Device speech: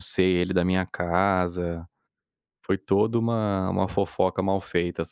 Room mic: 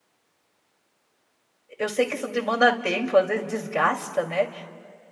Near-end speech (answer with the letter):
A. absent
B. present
B